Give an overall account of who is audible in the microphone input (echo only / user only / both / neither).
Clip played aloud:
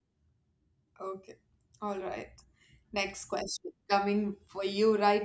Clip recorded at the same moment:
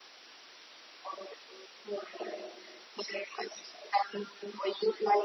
echo only